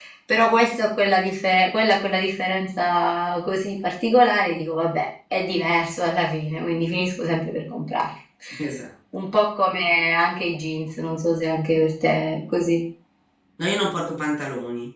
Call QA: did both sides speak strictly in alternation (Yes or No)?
Yes